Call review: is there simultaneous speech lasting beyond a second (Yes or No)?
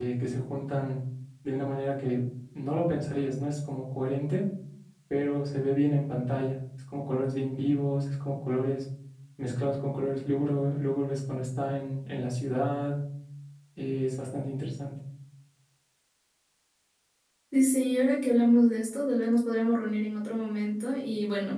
No